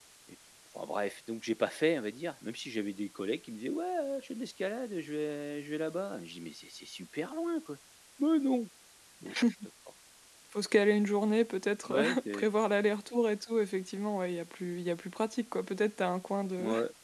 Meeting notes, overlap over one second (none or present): none